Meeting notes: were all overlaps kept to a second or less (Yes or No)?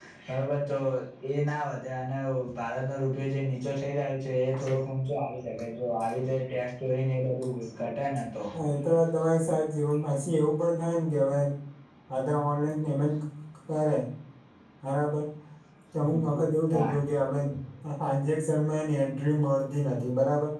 Yes